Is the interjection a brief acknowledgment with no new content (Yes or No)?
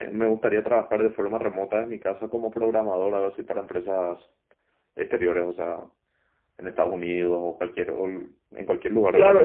No